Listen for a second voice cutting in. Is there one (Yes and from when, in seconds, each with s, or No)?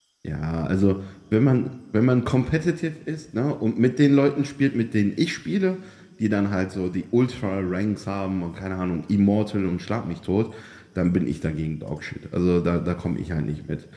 No